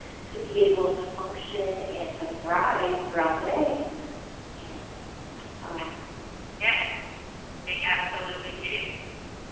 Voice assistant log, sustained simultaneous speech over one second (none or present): none